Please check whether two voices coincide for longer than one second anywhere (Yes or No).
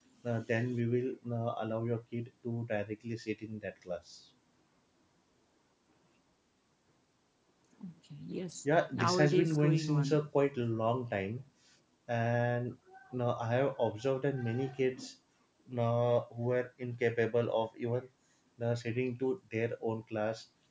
Yes